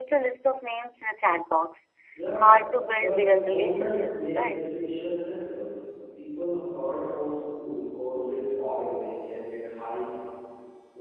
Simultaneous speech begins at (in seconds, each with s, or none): 3.0 s